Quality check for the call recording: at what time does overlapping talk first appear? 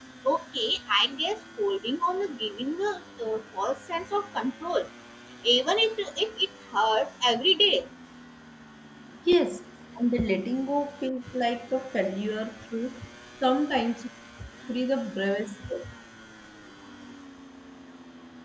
none

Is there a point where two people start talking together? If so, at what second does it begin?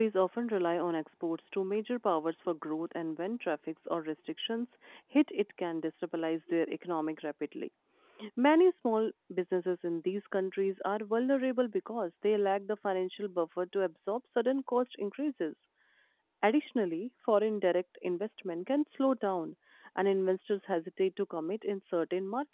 none

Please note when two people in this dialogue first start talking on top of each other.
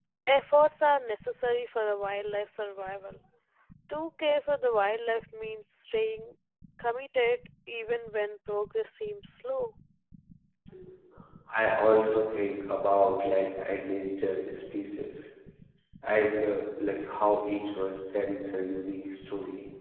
none

